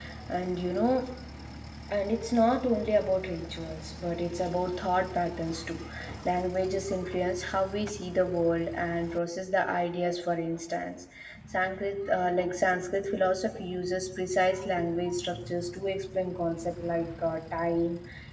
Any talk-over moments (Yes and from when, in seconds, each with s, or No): No